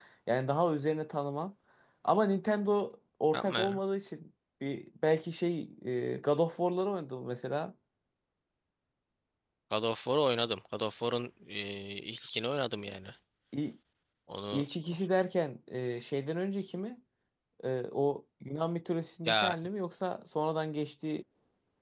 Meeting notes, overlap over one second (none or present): none